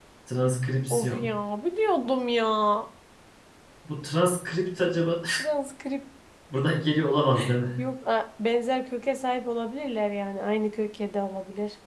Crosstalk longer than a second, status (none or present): none